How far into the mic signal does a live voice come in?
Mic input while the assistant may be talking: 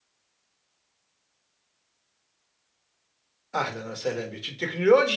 3.5 s

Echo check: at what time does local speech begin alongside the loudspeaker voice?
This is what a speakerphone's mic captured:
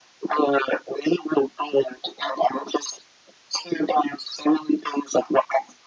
none

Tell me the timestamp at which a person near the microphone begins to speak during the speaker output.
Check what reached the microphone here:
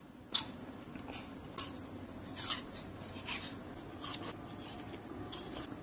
none

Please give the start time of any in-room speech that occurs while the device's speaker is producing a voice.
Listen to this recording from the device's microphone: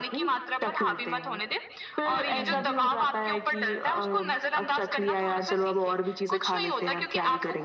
2.3 s

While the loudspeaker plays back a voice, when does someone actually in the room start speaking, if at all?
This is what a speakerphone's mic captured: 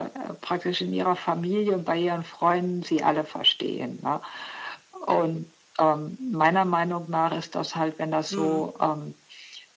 8.3 s

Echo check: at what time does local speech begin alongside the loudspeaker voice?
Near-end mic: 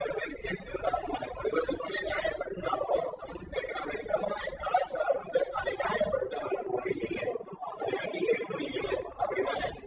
none

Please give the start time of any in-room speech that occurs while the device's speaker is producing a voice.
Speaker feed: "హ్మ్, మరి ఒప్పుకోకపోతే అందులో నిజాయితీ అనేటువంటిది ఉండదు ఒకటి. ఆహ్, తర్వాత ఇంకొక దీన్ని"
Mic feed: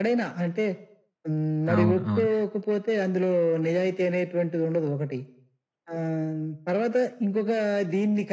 1.8 s

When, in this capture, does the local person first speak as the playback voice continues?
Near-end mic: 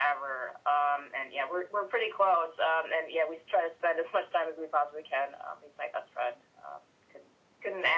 none

